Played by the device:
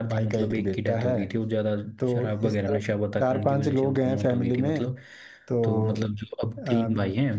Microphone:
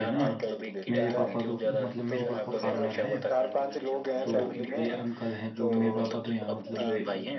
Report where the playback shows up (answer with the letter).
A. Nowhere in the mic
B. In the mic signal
B